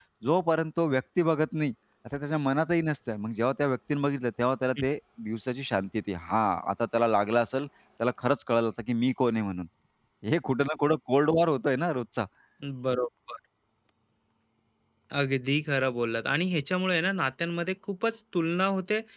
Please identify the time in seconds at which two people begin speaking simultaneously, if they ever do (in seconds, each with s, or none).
none